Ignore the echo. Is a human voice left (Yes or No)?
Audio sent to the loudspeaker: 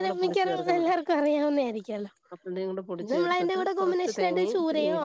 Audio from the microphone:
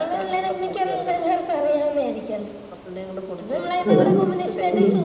Yes